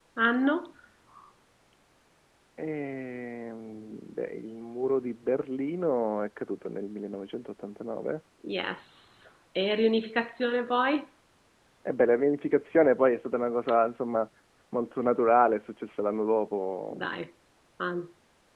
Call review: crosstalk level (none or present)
none